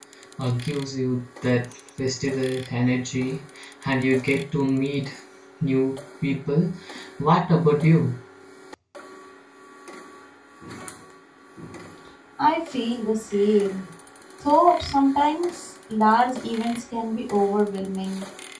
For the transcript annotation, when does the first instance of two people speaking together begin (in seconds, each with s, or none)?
none